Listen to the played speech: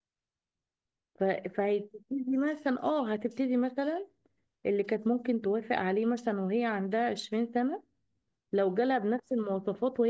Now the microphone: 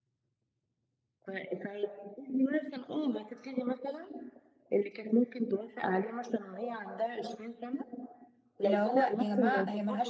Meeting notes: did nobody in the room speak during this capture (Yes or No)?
No